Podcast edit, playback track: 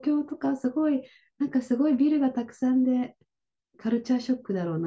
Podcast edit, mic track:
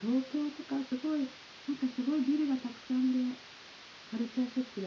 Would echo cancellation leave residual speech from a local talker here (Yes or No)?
No